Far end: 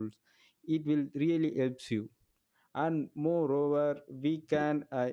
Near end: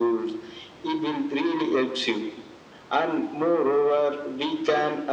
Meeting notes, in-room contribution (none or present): none